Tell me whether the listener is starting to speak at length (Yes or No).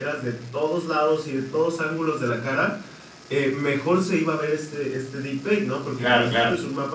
No